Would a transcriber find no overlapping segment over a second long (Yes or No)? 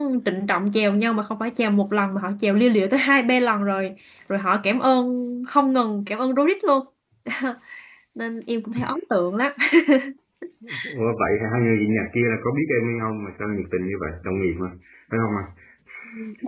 Yes